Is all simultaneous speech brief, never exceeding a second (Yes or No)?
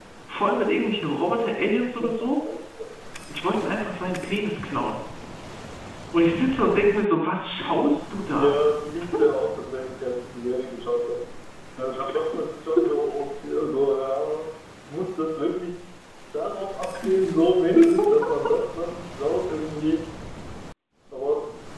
Yes